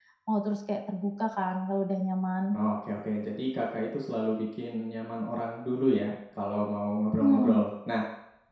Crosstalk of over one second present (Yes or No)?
No